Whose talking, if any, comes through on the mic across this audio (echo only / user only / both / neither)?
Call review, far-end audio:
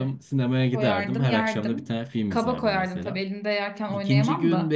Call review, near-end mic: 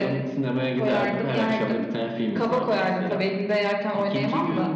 echo only